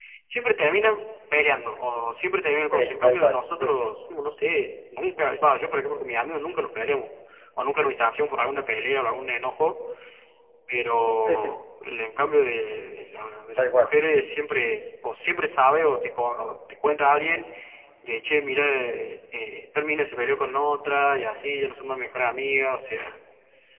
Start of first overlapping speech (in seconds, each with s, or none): 2.7 s